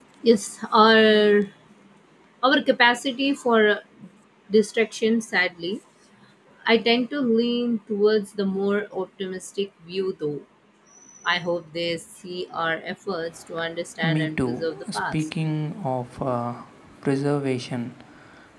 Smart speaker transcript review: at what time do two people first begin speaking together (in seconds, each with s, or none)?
14.0 s